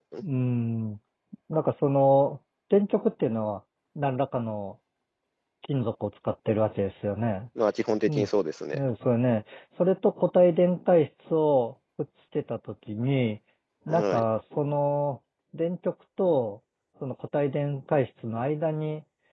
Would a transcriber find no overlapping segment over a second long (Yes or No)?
Yes